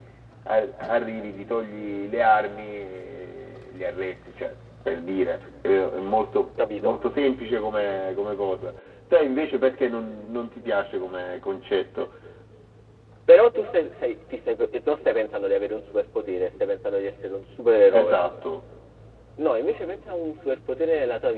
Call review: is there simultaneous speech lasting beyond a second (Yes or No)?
No